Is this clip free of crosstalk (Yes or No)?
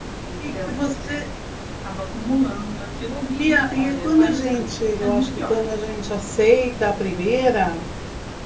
No